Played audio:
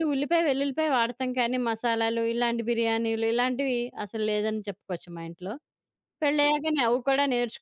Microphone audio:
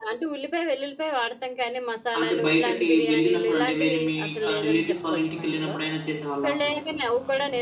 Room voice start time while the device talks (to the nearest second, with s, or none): 2 s